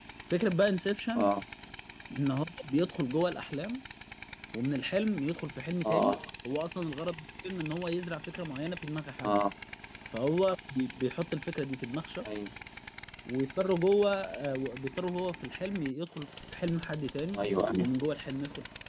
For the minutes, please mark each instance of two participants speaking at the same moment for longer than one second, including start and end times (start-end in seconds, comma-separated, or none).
none